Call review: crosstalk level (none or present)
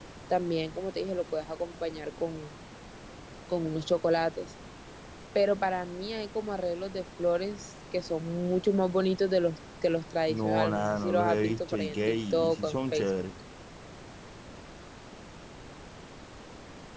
present